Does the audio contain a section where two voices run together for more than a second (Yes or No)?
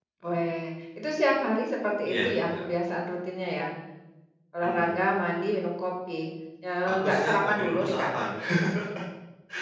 Yes